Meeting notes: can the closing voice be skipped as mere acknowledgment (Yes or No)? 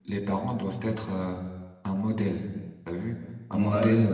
Yes